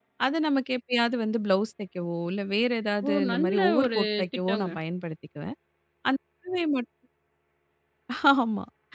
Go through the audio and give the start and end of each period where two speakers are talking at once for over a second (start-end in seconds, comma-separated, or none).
3.1-4.7